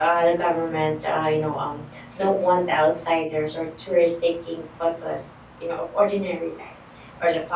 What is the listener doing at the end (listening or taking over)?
listening